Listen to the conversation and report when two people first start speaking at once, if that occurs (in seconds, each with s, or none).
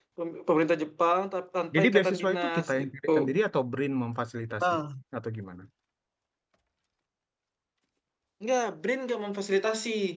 1.7 s